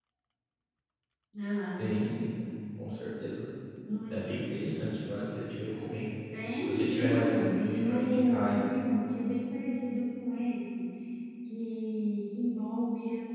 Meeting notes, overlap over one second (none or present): present